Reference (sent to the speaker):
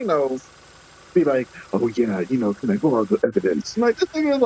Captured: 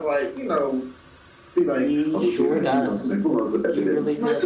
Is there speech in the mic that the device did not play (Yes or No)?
Yes